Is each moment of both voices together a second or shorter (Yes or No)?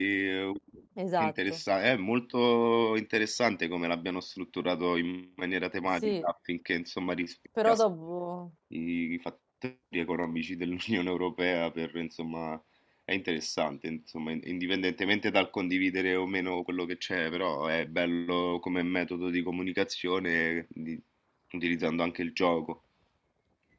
Yes